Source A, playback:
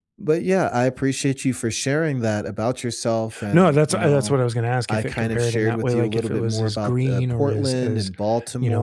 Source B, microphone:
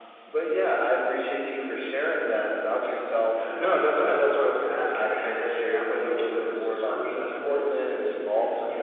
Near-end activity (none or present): none